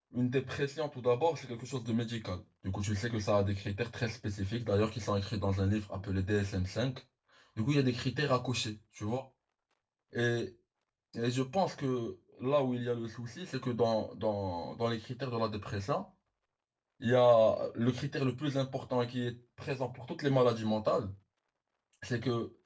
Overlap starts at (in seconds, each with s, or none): none